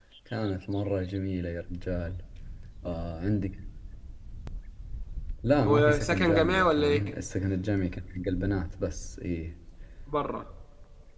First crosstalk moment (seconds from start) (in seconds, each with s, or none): 5.7 s